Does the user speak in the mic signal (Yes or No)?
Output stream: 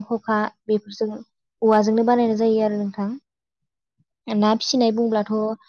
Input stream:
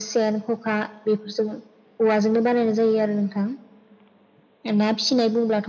No